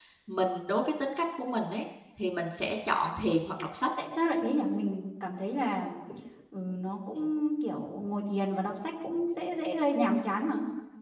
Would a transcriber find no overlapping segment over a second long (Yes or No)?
Yes